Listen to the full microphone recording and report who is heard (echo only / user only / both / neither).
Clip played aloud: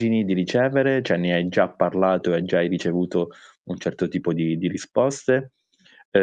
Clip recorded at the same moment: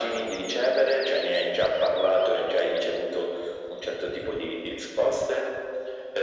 echo only